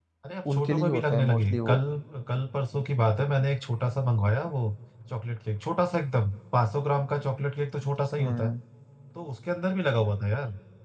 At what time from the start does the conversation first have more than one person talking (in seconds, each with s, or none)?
0.5 s